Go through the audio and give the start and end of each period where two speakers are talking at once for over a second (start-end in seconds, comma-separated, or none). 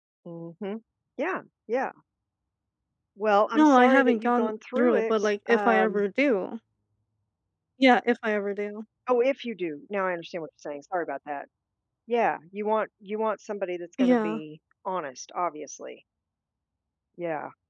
3.5-6.0